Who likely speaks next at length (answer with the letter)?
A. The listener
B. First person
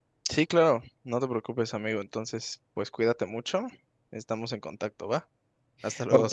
A